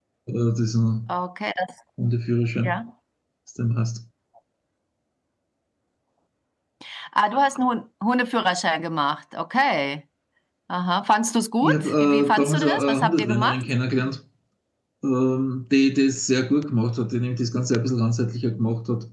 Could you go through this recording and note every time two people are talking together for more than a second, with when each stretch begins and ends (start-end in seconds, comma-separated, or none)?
11.6-13.6